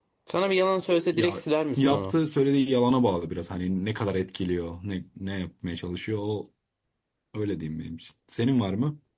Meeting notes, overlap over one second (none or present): none